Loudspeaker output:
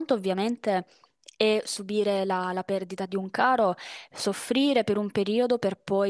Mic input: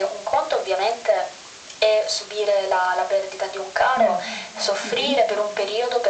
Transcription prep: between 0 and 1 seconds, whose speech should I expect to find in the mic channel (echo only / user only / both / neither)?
echo only